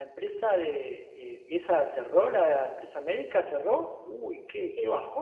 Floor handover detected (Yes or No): Yes